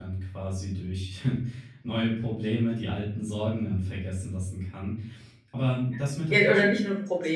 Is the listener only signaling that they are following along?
No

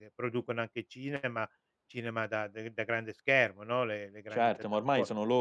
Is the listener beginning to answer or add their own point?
Yes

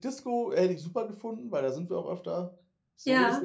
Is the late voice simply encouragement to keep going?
No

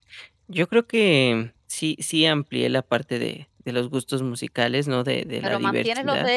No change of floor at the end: No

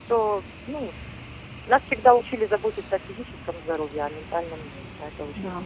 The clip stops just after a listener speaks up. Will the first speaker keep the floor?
No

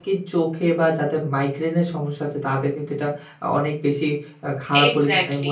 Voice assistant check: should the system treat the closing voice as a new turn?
No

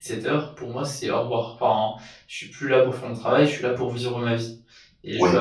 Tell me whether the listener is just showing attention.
Yes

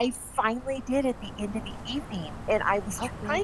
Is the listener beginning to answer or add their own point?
No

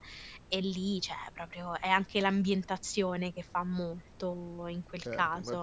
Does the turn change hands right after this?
Yes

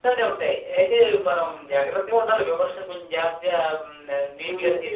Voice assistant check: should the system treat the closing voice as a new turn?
Yes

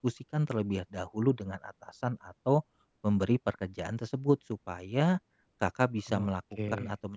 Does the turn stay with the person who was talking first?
Yes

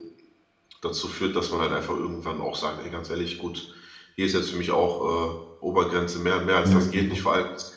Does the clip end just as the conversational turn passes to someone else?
No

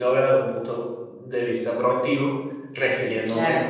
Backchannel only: Yes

